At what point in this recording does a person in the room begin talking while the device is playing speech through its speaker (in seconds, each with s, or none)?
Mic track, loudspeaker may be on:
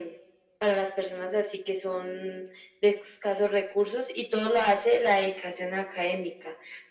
none